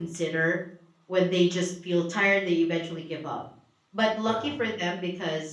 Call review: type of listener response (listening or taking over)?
listening